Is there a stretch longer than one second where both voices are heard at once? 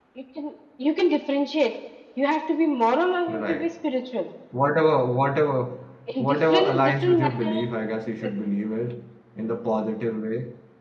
Yes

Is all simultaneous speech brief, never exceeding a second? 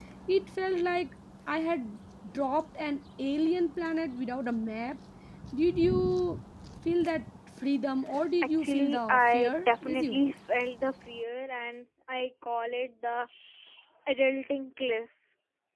No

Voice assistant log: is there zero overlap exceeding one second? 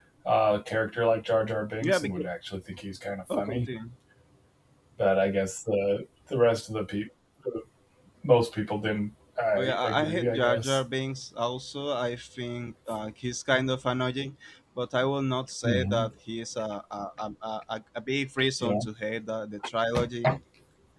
No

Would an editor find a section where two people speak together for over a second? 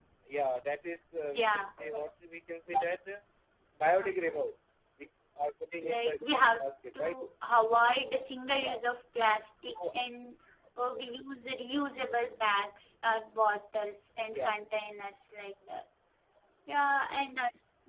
Yes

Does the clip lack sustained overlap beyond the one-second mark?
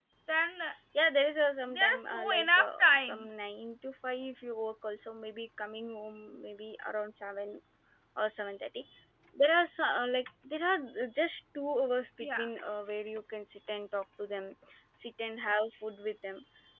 No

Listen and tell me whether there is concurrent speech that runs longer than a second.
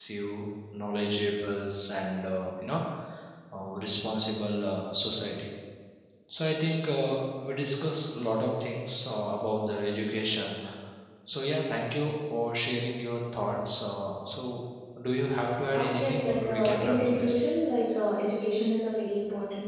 Yes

